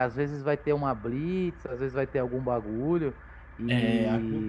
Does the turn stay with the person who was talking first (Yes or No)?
No